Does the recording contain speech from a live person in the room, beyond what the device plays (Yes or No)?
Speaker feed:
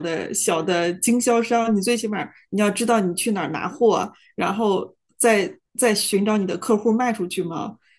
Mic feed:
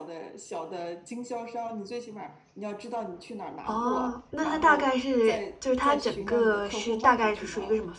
Yes